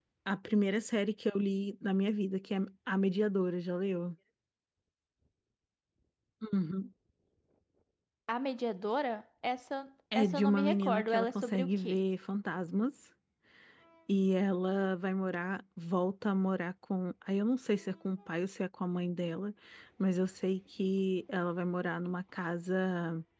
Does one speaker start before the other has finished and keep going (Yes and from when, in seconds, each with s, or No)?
Yes, from 10.1 s